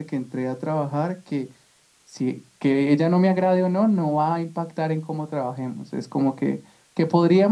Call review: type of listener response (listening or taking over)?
listening